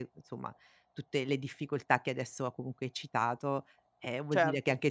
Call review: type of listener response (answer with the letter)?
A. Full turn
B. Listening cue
B